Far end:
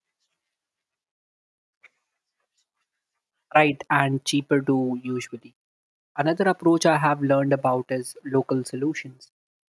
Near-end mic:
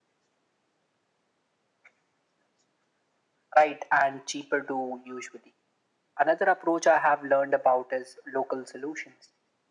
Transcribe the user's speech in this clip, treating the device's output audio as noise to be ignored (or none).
none